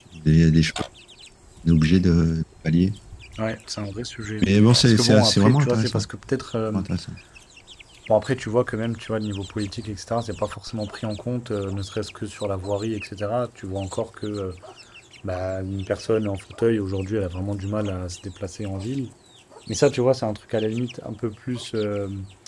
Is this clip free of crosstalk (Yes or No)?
No